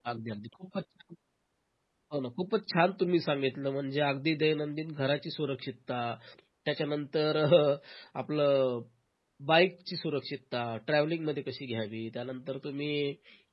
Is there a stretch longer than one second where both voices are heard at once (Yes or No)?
No